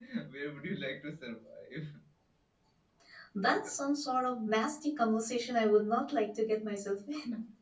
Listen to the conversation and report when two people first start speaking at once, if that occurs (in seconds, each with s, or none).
none